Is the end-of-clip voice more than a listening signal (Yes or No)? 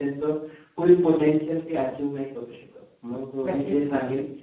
No